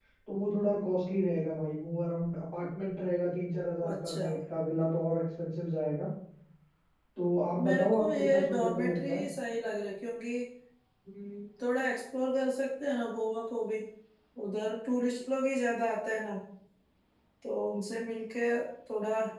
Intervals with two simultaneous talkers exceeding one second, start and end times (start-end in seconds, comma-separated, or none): 7.7-9.2